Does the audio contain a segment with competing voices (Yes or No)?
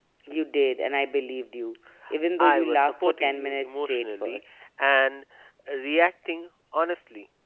Yes